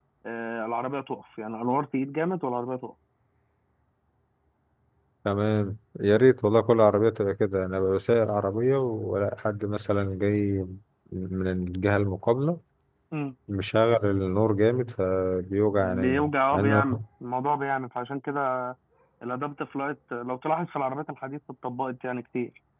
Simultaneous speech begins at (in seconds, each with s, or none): 15.7 s